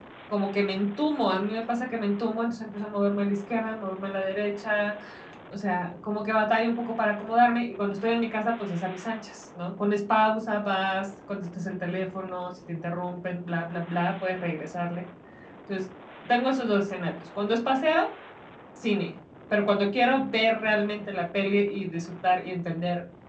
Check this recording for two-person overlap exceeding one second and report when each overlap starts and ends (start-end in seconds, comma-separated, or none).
none